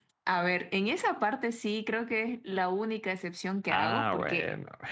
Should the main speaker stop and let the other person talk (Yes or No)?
No